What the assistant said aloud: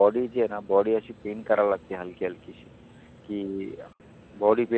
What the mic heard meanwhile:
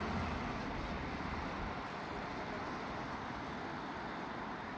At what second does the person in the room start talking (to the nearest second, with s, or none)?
none